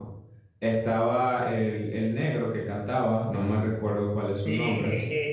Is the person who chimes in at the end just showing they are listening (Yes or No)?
No